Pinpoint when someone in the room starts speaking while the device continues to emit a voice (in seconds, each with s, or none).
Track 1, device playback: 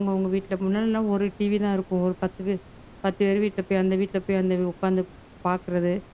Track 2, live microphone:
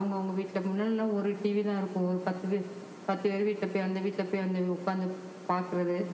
none